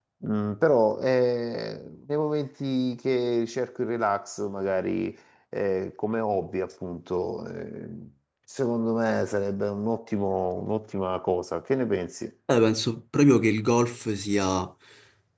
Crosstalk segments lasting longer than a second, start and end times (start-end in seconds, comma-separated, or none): none